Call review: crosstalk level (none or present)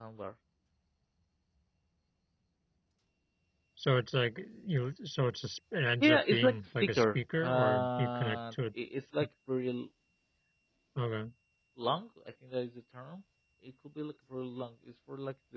present